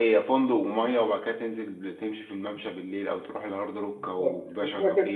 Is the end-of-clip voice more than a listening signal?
Yes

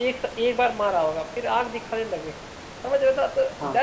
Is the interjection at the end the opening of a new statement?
No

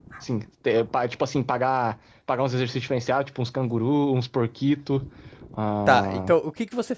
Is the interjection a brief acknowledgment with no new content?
No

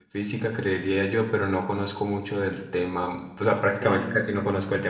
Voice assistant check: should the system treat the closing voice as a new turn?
No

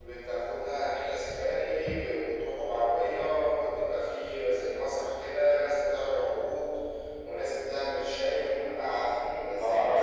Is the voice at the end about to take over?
Yes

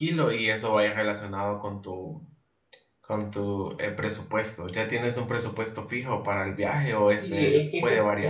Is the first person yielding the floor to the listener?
Yes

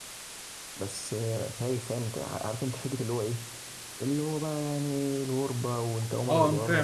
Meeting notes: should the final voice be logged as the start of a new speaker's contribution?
Yes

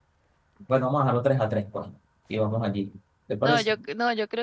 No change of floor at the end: No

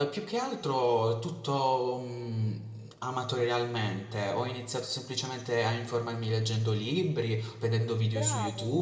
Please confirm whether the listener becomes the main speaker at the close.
No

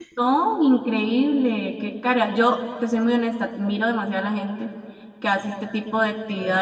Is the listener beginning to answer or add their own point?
No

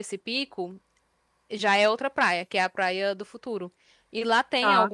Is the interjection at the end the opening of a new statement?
No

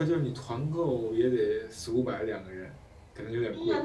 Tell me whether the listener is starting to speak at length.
Yes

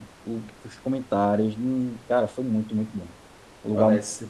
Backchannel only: No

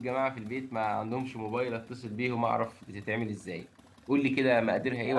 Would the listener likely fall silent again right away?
No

